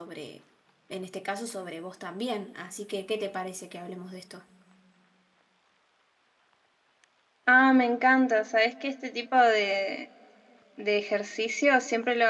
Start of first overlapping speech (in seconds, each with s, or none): none